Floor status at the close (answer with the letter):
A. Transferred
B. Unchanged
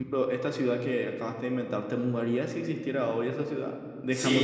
A